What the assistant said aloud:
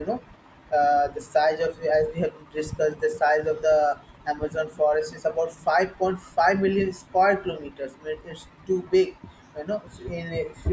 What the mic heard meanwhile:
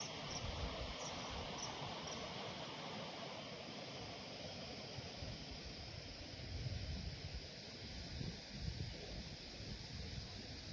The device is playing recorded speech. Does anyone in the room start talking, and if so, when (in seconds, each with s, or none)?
none